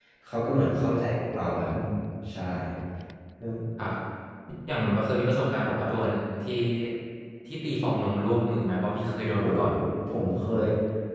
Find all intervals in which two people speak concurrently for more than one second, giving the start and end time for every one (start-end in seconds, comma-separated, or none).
none